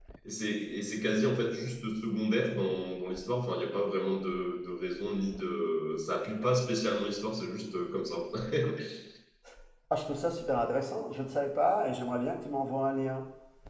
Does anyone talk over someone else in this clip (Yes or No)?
No